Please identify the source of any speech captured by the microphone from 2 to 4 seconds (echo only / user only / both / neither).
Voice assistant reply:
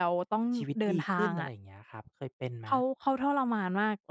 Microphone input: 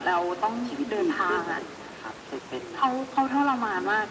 echo only